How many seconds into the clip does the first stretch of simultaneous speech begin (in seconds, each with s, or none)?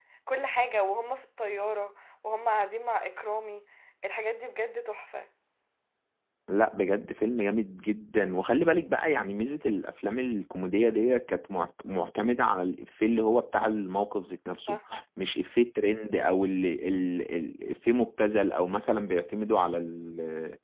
none